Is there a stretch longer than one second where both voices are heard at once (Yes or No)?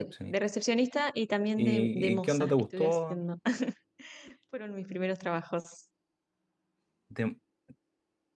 Yes